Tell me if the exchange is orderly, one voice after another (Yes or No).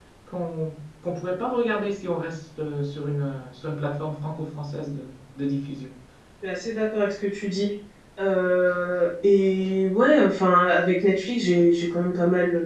Yes